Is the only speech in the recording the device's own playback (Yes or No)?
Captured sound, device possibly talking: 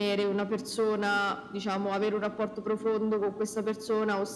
Yes